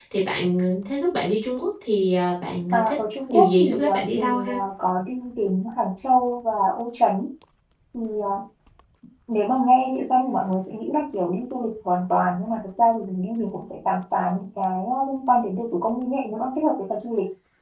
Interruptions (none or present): present